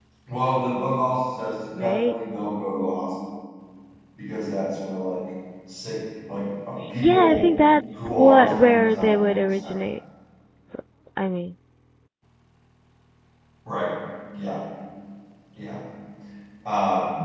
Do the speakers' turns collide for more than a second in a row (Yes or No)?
Yes